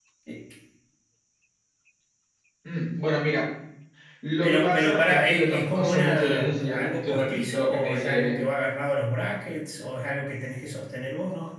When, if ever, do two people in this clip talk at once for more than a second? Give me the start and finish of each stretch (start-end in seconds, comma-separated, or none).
4.4-8.4